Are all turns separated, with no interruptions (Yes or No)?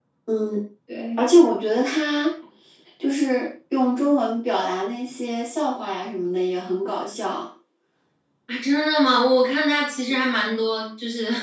Yes